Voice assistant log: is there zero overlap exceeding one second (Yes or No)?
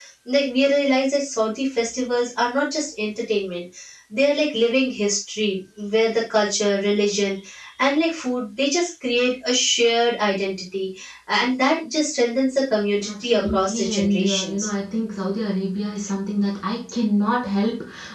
No